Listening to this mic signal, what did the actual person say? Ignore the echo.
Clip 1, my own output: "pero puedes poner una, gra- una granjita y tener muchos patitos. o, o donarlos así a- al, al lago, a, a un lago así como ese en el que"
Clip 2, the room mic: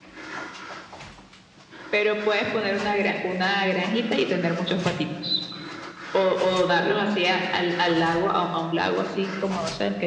none

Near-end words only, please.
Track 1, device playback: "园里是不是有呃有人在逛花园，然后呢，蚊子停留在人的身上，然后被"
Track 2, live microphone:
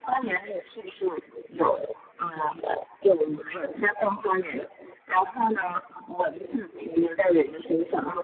none

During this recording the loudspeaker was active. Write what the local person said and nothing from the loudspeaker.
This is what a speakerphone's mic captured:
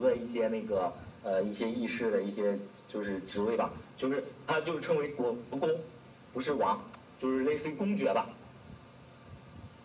none

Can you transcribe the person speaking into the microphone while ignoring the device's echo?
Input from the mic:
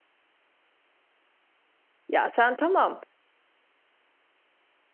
Ya sen tamam.

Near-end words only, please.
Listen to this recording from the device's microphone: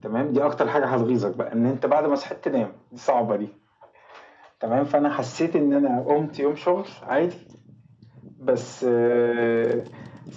none

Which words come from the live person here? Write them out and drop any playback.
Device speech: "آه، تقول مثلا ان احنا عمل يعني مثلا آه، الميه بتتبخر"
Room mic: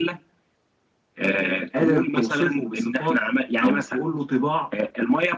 آه قادر توصفه بصفات او تقول له طباع

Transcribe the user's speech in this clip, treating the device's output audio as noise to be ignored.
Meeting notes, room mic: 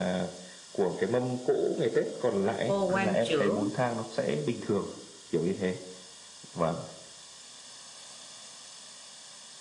ô quan trưởng

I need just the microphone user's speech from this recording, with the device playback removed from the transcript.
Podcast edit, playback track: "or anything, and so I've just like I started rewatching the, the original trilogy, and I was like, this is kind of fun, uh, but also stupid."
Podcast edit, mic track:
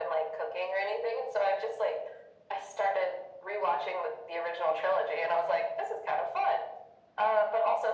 none

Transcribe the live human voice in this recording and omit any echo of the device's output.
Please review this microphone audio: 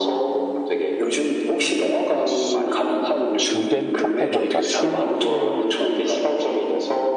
수- 주된 카테고리가 술이에요.

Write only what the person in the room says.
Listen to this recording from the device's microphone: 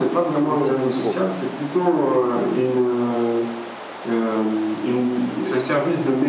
même si c'est faux.

